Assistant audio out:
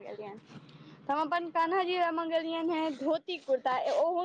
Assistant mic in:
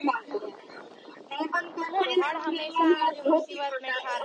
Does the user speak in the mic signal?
Yes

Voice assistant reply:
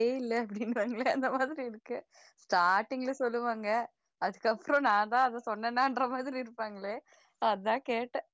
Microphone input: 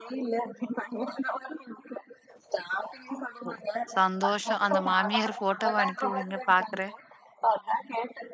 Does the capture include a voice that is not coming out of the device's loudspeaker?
Yes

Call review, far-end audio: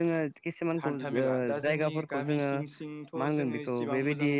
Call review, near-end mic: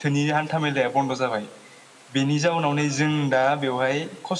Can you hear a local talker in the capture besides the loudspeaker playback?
Yes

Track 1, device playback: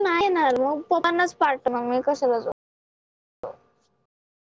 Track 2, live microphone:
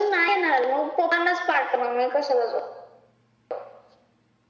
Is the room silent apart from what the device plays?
Yes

